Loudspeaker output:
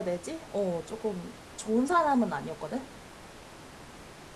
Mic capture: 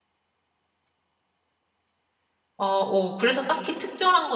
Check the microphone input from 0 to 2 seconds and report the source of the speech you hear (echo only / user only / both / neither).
neither